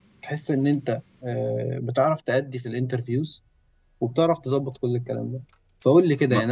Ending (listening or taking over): listening